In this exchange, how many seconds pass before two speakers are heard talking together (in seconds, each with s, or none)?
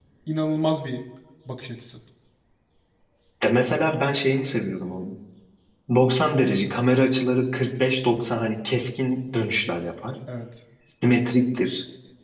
none